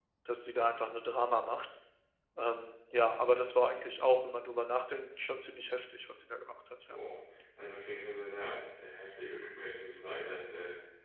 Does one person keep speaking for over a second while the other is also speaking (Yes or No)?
No